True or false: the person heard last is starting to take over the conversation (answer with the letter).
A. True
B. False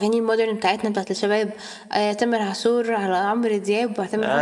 A